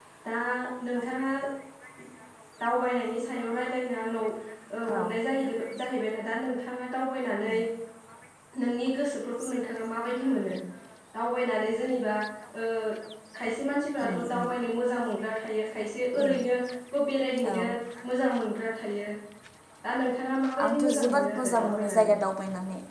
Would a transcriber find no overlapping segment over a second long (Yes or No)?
No